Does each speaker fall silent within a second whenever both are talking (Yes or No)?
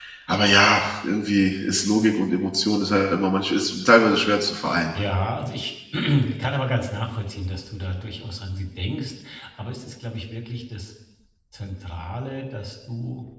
Yes